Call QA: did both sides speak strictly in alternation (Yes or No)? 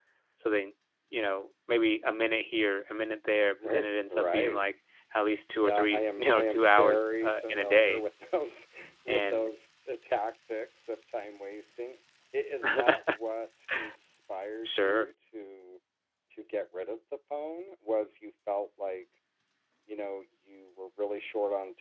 No